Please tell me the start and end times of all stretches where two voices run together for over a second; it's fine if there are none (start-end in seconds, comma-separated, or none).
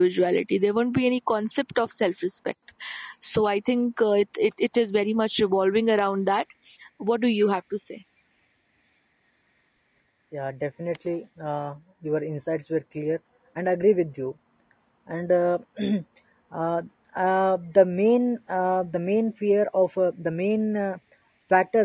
none